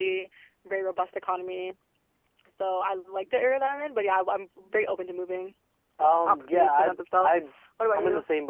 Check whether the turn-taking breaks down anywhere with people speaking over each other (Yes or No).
Yes